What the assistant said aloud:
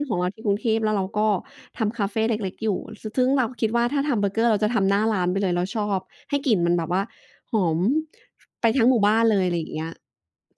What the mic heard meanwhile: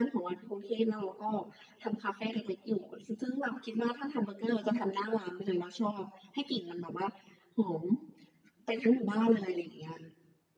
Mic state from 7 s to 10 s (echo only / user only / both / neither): echo only